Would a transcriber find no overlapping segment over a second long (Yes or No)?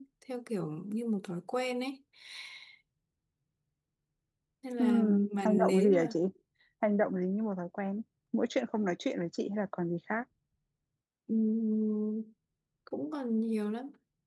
No